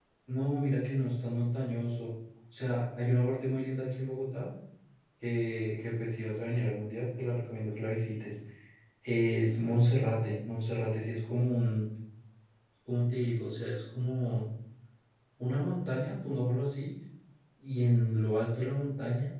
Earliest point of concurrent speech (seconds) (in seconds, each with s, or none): none